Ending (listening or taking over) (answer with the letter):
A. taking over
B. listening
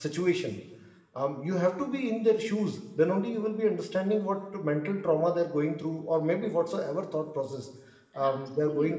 B